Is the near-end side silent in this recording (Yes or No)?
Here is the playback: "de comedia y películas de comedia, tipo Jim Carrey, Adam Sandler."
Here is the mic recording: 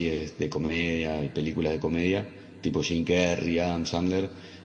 Yes